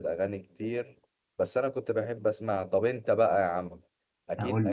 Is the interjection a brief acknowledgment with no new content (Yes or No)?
Yes